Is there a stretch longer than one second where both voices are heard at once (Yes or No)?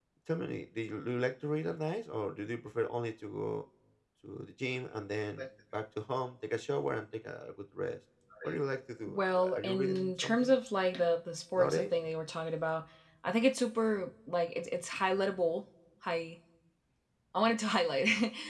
Yes